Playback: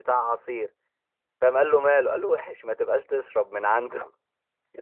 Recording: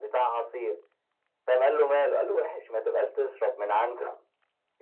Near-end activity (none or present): none